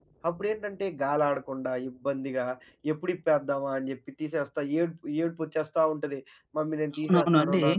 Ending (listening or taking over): taking over